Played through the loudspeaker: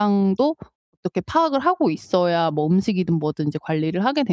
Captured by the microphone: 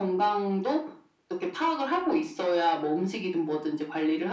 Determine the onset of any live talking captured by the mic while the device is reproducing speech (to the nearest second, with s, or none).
none